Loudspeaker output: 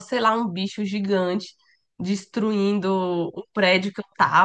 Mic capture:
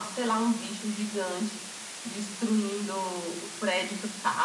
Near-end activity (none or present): none